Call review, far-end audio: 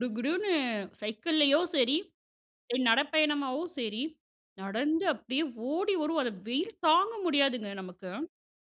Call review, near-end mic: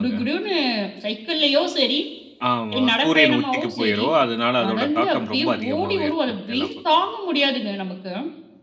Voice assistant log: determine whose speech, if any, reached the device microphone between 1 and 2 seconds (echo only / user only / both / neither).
echo only